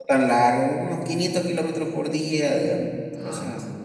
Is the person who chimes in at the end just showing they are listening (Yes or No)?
No